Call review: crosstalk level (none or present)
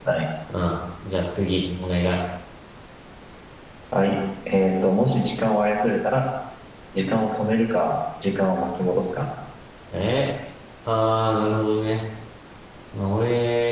none